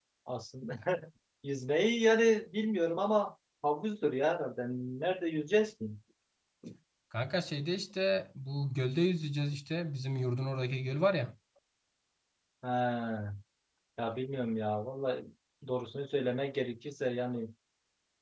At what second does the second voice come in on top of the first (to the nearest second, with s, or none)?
none